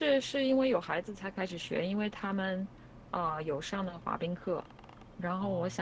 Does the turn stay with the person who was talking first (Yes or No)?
Yes